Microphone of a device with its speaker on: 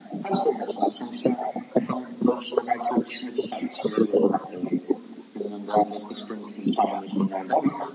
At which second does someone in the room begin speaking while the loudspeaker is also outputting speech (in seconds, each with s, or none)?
none